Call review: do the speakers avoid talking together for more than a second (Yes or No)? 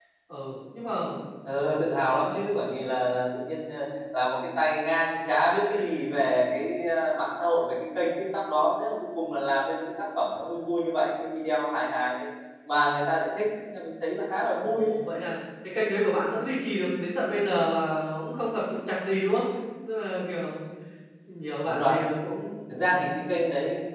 Yes